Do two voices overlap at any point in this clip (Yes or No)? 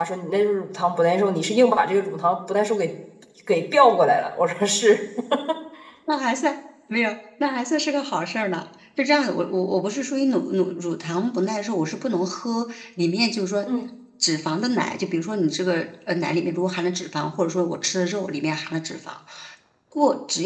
No